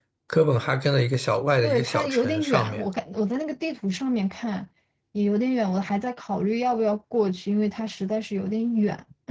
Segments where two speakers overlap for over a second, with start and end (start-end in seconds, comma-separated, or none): 1.6-2.9